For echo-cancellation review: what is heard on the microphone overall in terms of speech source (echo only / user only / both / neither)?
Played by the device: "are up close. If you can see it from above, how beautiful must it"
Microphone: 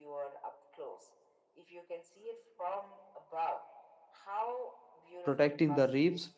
both